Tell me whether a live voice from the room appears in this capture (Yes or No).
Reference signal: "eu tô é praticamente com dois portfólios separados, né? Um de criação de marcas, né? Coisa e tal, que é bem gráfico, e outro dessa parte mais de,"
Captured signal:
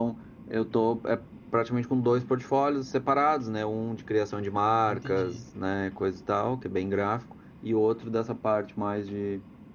Yes